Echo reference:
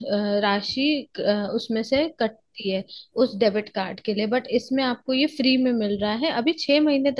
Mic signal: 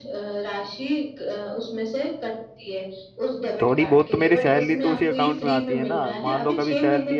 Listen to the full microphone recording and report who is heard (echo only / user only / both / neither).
both